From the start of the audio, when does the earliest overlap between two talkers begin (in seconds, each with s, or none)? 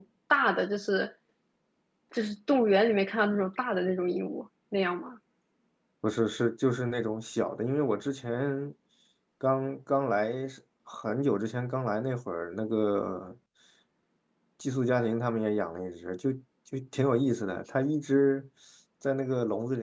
none